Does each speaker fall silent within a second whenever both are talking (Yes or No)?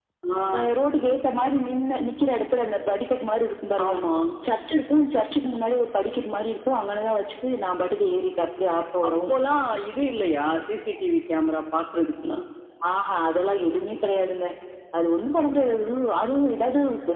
Yes